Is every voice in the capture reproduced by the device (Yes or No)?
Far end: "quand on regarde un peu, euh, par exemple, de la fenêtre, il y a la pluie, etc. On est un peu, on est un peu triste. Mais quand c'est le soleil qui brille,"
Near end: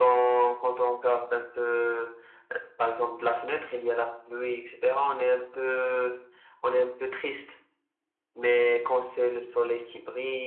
Yes